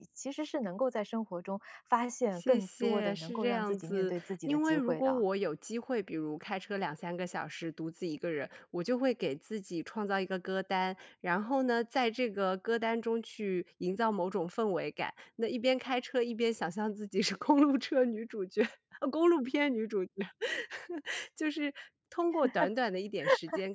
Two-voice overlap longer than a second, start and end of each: 2.4-5.2

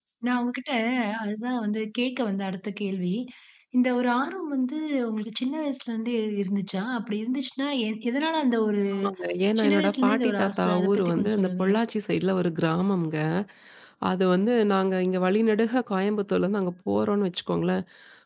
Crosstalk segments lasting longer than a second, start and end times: 9.6-11.8

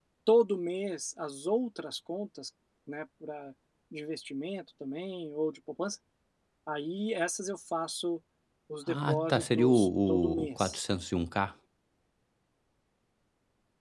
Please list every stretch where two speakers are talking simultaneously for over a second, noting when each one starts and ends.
8.9-10.8

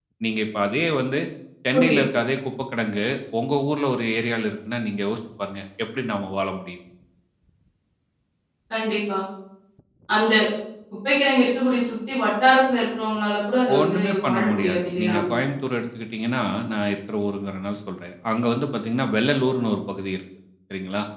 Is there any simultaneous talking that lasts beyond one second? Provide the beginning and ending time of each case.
13.8-15.2

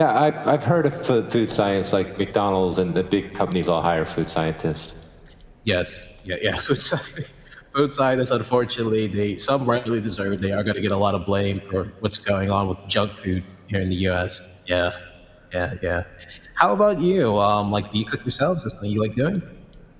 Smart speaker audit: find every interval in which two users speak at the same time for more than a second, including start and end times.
none

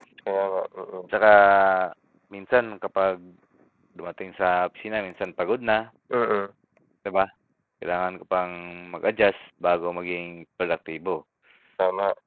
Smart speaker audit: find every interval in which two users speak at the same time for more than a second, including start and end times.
none

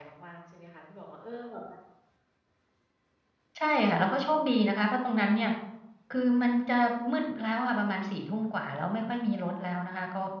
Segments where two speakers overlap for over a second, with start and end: none

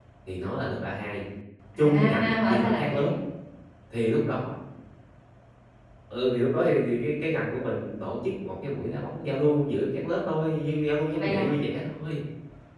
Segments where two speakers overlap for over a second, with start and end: 1.8-3.1

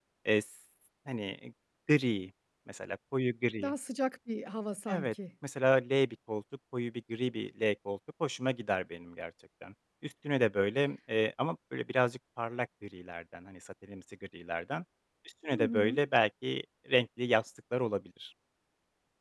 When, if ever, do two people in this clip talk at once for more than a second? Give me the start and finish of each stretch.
none

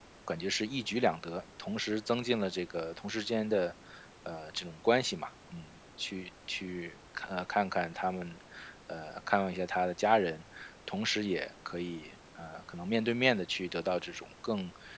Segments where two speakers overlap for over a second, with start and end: none

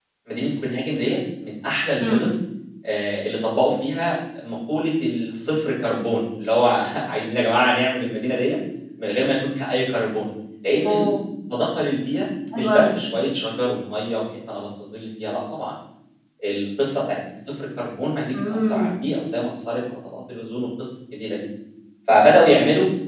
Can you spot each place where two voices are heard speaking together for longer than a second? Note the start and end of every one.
none

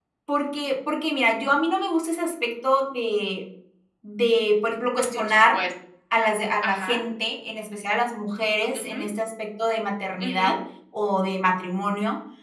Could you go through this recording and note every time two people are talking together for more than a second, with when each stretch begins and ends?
none

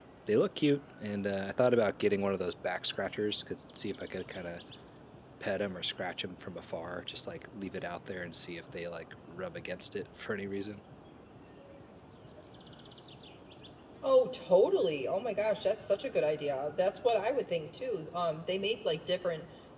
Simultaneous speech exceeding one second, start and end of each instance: none

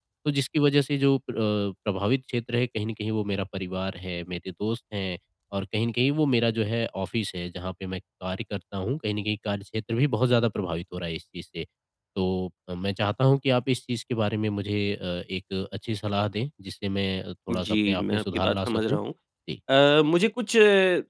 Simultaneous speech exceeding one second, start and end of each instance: 17.5-19.0

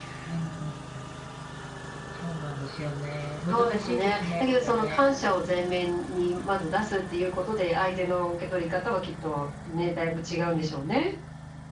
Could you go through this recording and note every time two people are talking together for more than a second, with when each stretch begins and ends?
3.5-5.0

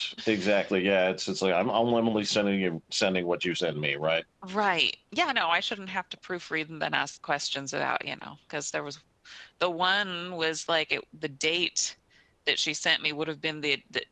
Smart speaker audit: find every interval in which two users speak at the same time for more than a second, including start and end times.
none

